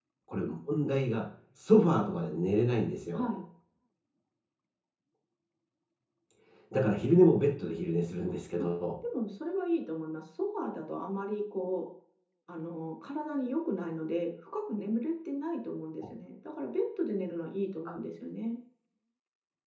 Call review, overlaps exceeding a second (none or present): none